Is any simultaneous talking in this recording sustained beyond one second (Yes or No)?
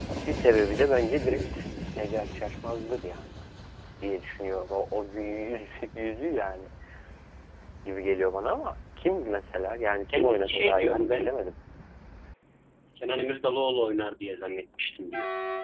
Yes